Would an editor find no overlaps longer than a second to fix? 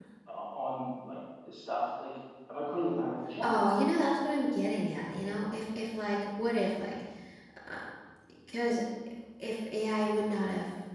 Yes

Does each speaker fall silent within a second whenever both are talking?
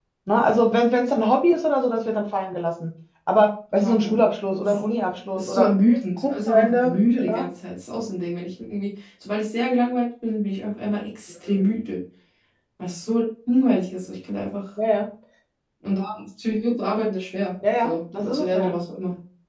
No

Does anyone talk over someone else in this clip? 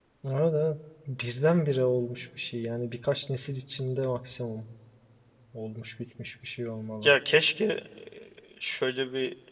No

